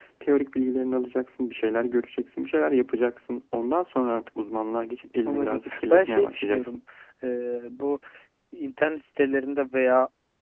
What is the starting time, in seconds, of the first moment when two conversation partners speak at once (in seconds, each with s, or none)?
5.2 s